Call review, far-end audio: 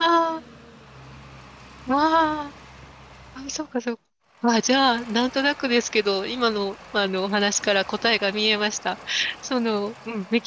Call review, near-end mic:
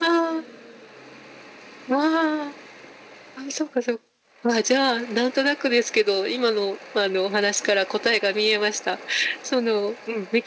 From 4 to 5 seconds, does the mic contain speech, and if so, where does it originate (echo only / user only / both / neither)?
echo only